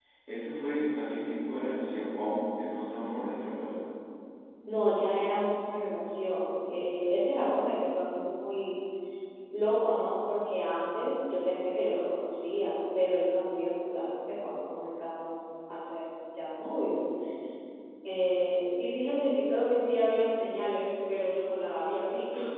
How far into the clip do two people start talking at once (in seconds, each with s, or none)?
none